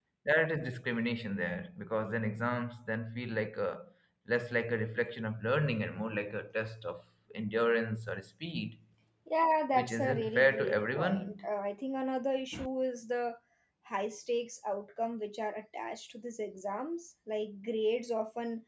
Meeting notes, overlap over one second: present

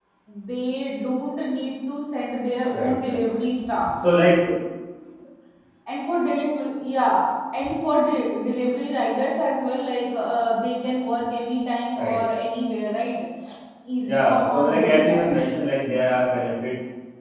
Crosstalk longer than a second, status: present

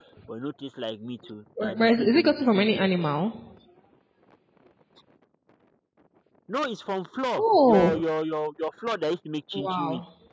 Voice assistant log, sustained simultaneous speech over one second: present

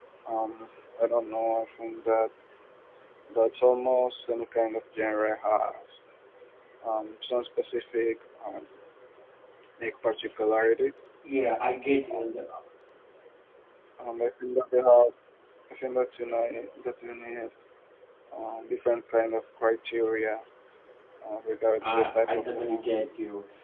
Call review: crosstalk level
present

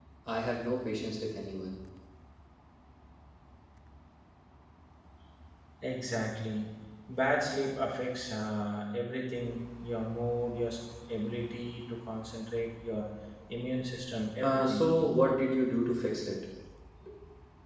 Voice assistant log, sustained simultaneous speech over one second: none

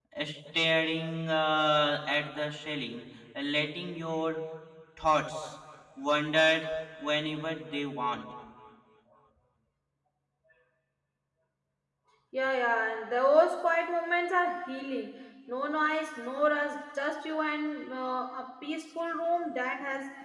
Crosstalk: none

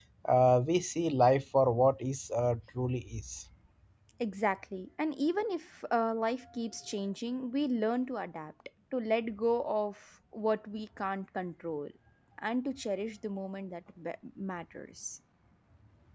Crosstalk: none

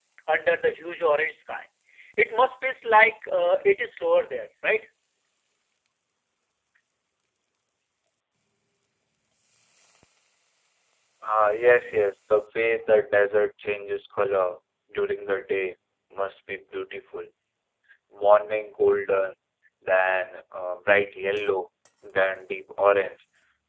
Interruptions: none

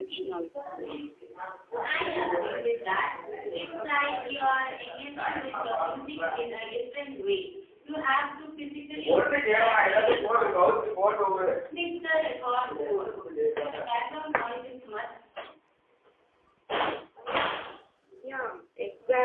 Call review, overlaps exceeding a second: present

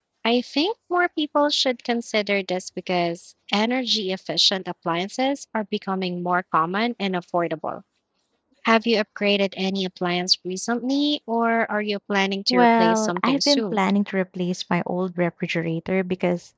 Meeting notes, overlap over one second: present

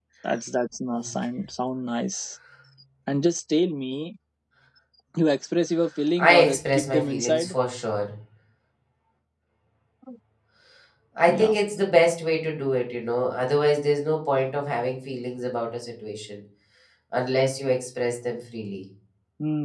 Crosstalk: present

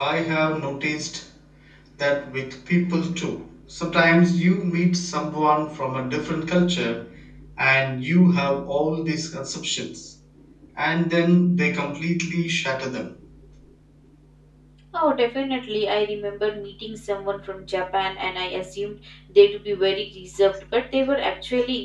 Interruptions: none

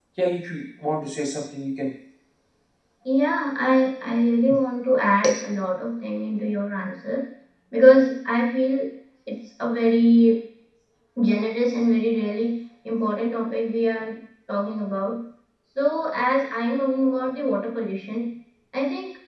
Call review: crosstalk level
none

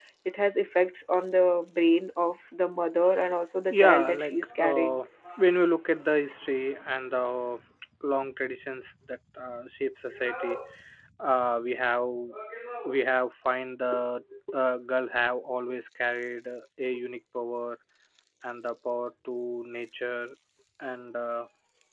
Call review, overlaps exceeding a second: present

